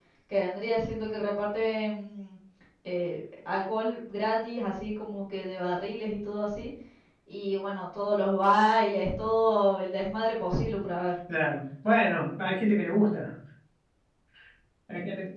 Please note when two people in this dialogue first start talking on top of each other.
none

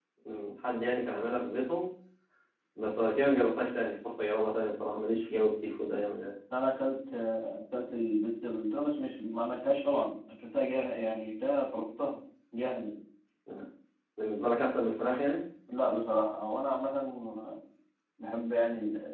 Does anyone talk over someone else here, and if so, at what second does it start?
none

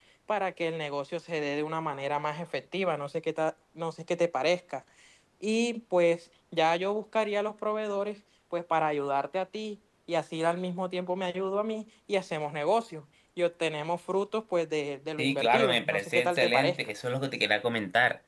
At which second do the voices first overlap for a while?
15.2 s

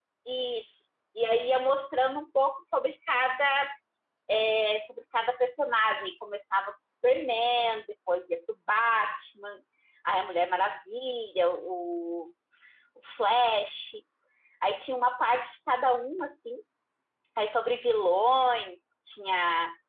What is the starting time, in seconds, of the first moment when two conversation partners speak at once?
none

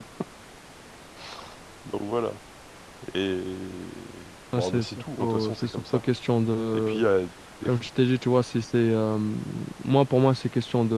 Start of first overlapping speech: 4.5 s

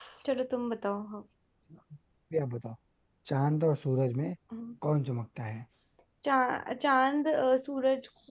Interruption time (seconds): none

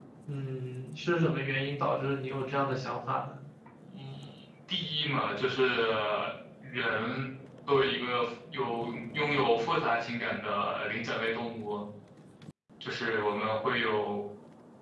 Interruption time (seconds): none

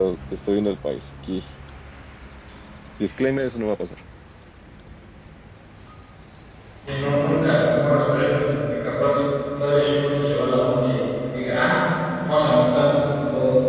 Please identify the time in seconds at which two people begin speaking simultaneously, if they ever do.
none

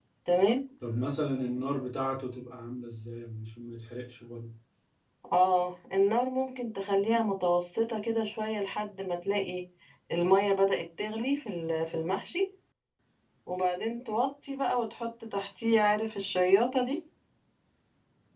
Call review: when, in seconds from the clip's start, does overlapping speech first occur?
none

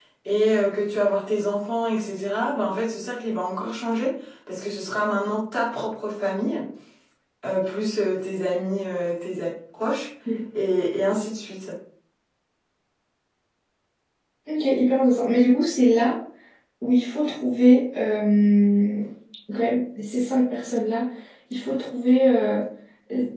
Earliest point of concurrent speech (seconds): none

